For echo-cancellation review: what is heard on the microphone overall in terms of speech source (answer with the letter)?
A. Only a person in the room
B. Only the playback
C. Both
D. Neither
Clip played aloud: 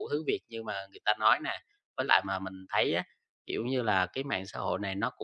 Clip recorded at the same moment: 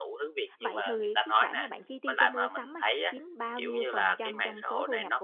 C